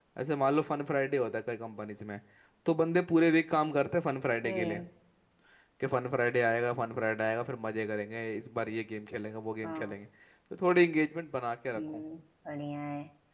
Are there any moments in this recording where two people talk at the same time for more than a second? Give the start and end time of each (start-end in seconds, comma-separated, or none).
none